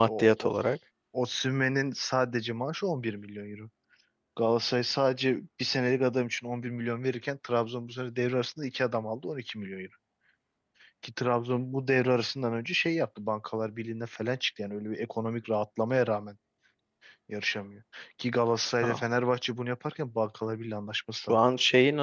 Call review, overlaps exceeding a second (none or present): none